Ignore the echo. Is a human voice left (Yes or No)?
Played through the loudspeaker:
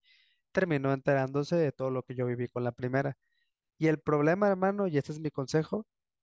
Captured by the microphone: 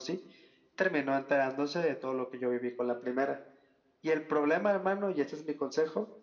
No